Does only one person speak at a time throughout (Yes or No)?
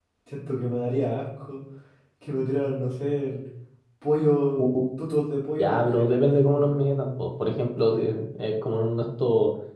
No